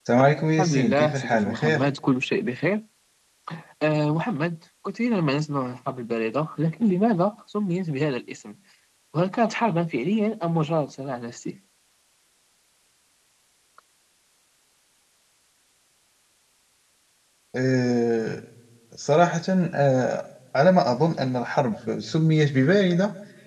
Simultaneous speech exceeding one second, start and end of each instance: 0.6-1.8

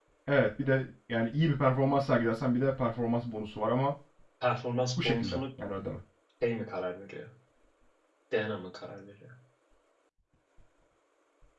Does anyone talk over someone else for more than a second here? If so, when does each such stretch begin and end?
none

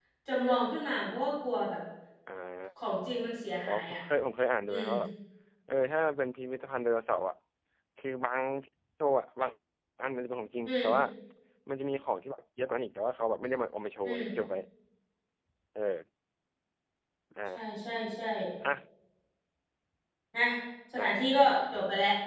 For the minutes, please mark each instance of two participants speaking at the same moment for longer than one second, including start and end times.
none

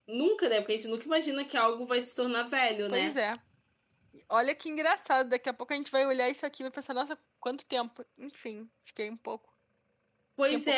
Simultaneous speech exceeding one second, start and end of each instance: none

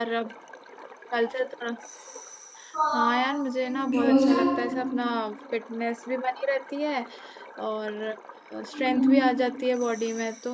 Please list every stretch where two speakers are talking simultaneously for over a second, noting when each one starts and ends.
3.6-4.8

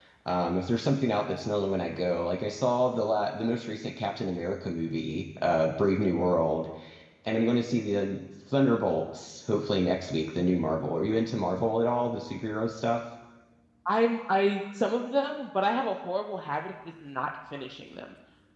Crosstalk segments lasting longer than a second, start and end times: none

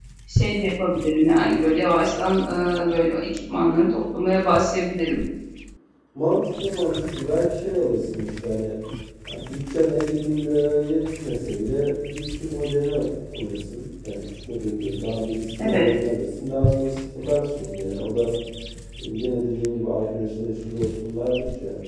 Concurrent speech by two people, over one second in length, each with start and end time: none

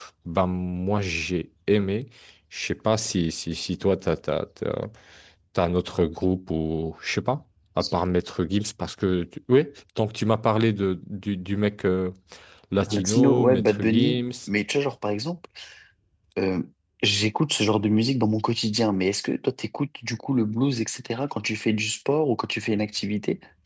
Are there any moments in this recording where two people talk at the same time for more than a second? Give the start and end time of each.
12.9-14.2

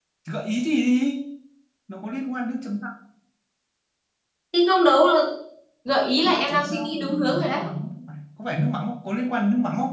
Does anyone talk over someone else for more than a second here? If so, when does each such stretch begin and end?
6.2-7.6

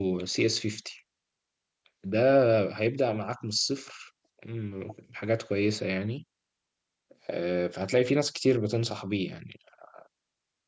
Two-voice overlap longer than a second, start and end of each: none

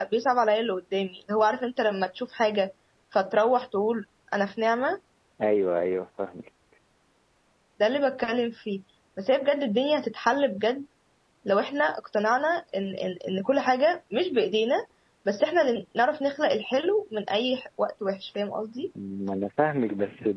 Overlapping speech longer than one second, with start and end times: none

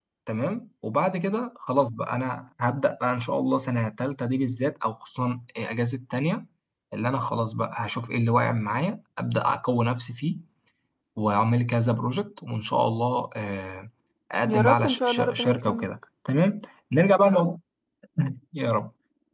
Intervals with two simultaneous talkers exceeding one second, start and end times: 14.5-15.9

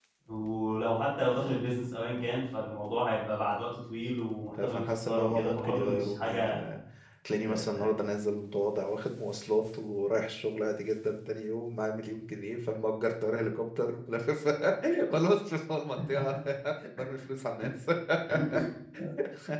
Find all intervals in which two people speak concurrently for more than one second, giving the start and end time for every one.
4.7-6.7

